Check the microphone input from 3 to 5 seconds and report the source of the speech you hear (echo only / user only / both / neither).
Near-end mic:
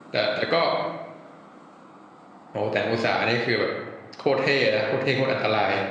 user only